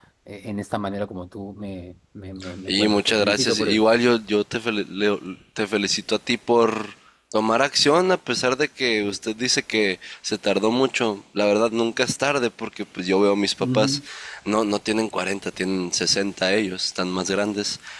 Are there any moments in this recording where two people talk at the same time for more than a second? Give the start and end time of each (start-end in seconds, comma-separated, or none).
2.7-3.9